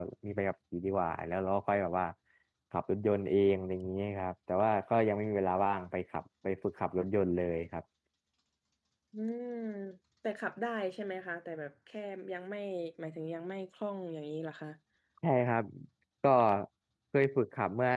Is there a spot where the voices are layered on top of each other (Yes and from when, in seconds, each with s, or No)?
No